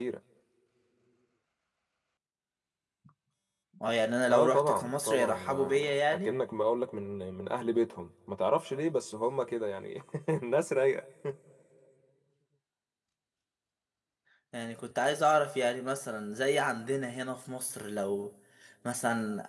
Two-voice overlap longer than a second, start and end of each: 4.3-6.3

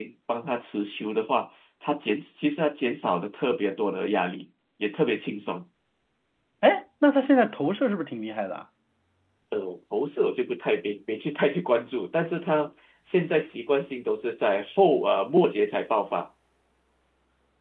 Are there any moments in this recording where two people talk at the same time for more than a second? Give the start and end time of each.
none

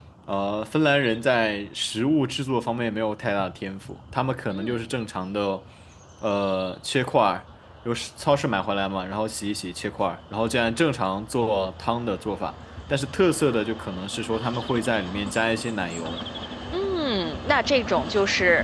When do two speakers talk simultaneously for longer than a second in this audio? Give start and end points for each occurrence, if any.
none

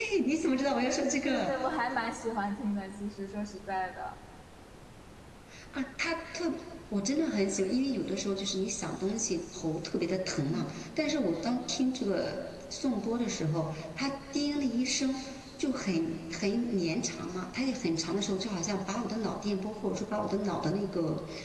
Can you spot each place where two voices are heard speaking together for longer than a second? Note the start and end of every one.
none

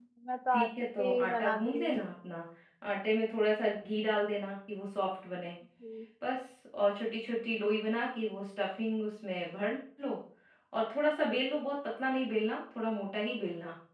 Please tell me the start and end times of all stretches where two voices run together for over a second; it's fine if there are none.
0.5-2.0

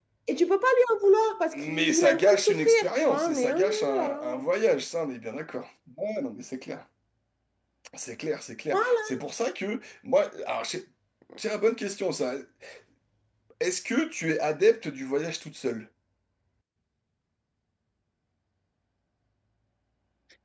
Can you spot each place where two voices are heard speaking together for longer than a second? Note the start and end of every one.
1.5-4.2

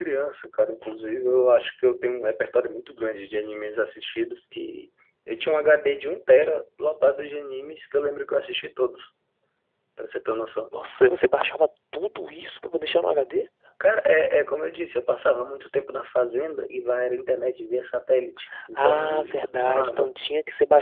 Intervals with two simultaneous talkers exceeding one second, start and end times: 18.8-20.1

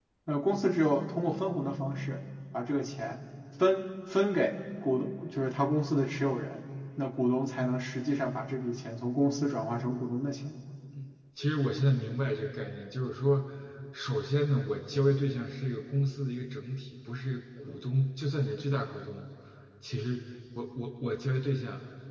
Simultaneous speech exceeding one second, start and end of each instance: none

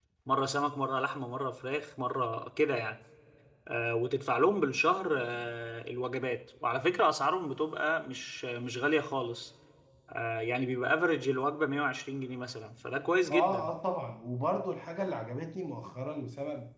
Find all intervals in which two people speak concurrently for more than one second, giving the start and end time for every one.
none

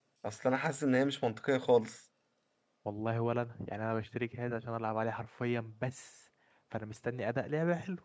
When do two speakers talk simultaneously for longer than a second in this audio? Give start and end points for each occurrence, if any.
none

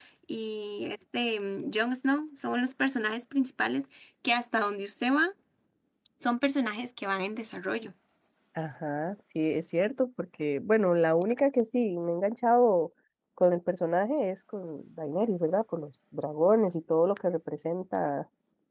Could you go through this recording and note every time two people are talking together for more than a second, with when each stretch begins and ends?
none

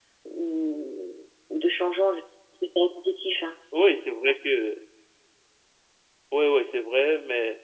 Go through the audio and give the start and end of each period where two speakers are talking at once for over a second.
none

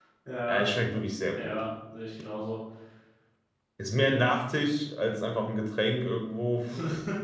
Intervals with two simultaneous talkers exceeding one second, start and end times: none

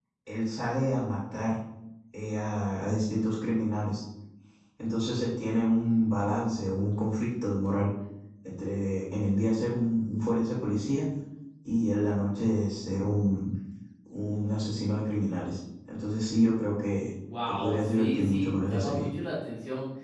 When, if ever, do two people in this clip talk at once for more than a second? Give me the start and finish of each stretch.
17.5-19.1

